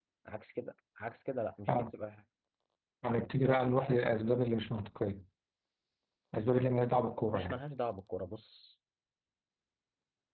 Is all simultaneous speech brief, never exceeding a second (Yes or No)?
Yes